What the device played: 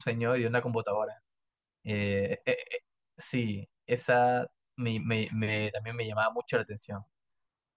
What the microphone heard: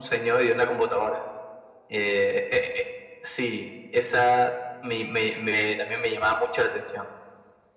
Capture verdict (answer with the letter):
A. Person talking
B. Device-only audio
B